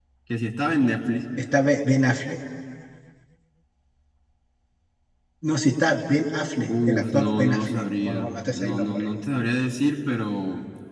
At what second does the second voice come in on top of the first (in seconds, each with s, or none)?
6.7 s